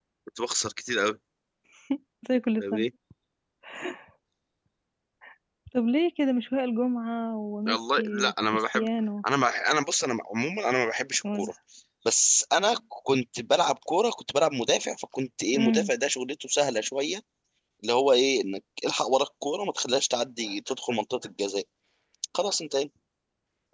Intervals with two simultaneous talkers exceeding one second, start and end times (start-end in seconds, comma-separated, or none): 7.7-8.9